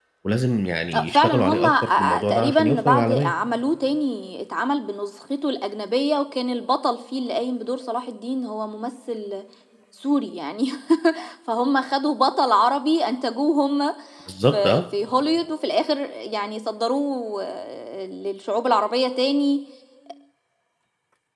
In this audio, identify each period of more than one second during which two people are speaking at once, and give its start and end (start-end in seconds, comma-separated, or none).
0.9-3.3